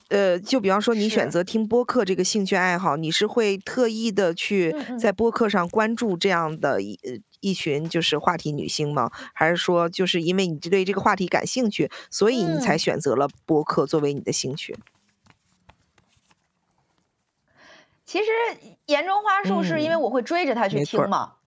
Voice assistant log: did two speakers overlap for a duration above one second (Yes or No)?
No